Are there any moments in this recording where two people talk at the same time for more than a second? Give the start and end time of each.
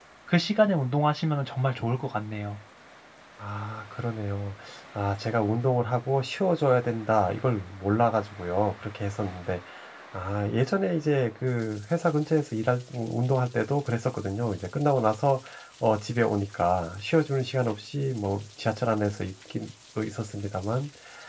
none

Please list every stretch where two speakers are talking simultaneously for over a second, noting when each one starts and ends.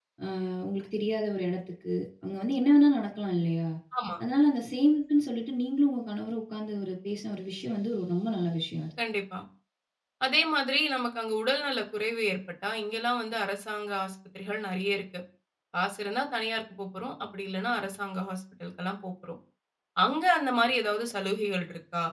none

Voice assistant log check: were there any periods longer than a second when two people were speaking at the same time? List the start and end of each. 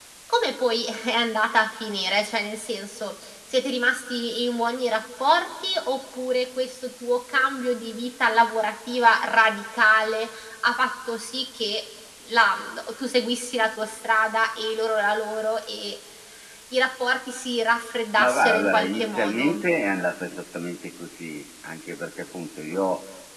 18.2-19.5

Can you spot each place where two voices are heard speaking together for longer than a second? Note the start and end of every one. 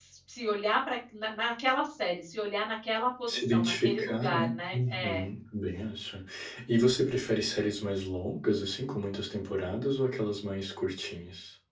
3.3-5.3

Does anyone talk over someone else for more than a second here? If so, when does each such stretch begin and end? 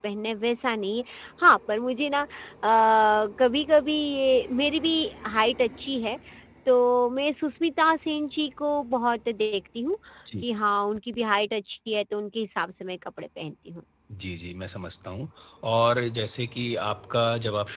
none

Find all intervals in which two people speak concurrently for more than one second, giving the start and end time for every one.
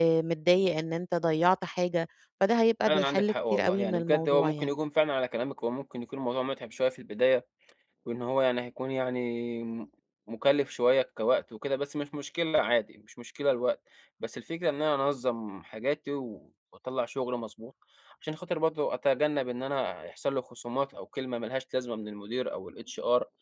2.9-4.7

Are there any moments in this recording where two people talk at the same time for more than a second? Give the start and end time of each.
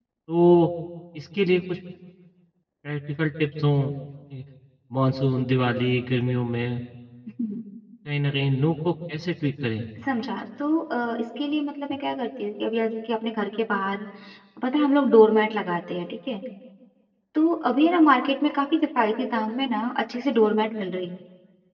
none

